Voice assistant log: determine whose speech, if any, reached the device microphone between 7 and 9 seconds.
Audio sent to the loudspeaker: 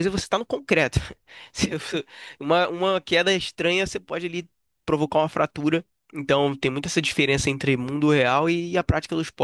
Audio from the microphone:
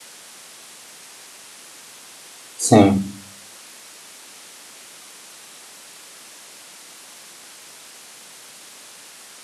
neither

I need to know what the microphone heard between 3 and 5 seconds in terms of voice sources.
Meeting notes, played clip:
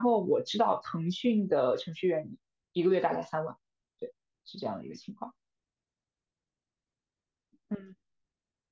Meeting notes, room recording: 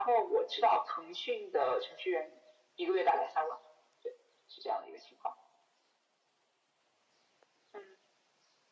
echo only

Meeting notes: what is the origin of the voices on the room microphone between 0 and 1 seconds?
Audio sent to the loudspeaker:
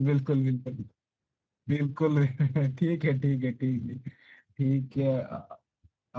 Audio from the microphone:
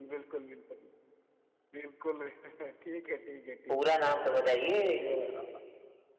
echo only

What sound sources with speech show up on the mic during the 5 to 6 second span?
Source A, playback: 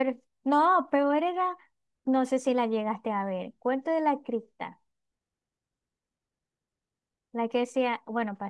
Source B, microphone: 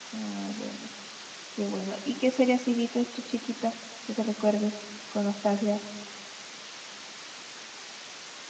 user only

